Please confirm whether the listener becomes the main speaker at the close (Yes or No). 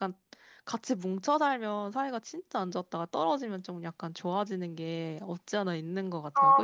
Yes